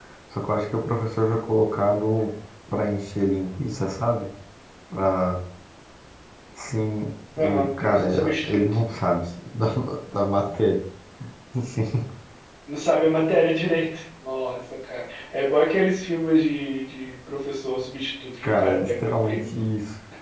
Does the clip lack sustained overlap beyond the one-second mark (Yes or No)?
No